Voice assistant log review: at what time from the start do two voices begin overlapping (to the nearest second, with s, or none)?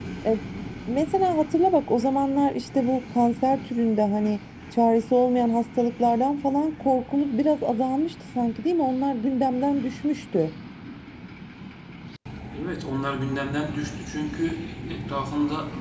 none